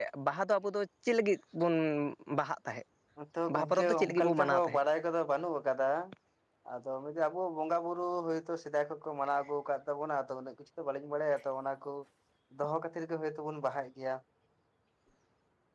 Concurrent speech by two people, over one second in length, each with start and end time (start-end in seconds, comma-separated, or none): 3.5-4.8